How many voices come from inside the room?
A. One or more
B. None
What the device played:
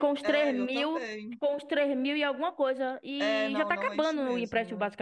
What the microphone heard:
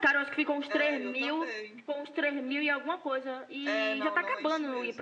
B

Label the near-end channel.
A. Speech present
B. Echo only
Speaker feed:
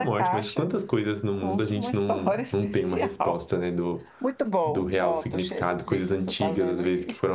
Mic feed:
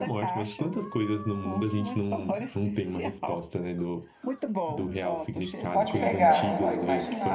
A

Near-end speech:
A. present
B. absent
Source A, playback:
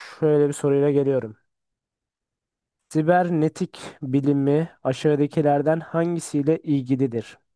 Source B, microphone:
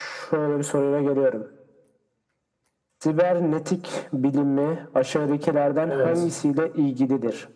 A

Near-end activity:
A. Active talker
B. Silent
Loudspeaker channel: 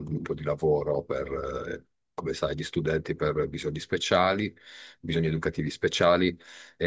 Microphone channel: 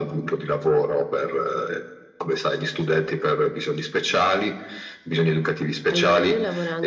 A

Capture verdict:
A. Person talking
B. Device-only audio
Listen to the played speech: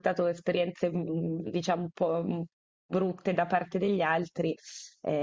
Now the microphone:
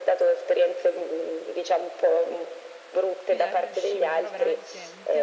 A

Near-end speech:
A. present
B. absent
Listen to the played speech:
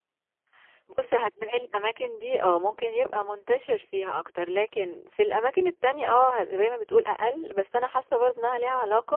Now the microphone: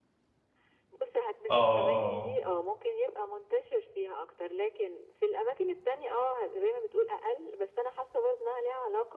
A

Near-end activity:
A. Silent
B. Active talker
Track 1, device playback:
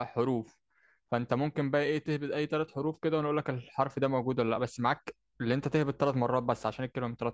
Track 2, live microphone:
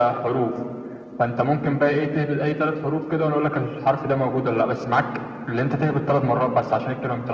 A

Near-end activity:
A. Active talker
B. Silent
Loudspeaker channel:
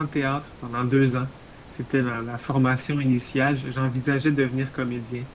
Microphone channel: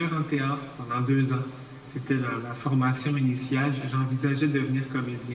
B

